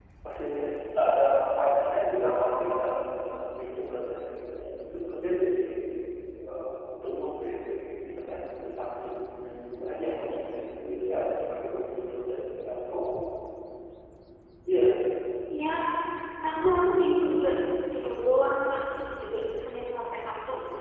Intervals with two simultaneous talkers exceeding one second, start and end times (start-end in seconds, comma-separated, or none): 2.2-3.5